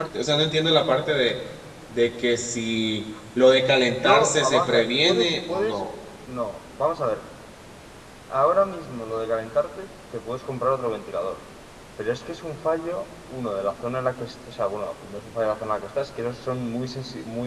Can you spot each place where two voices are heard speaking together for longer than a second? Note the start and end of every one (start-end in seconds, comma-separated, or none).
3.9-5.8